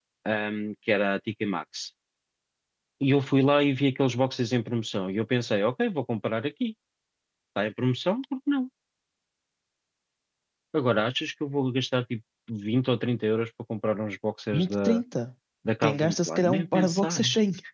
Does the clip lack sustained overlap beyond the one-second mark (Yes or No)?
No